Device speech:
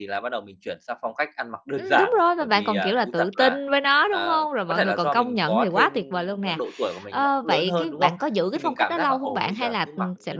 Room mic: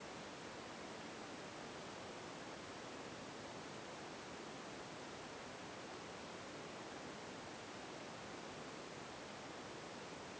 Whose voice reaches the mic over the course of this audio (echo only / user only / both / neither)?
neither